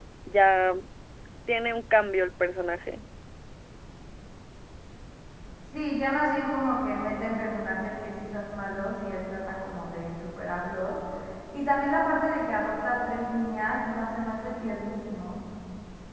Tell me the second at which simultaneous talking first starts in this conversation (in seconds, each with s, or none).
none